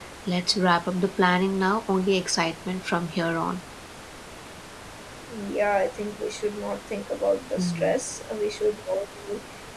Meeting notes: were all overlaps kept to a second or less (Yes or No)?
Yes